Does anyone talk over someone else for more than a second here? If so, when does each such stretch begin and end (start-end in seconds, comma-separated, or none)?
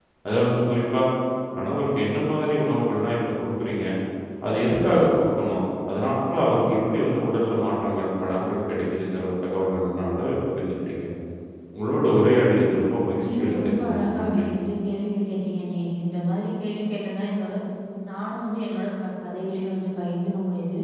13.2-14.4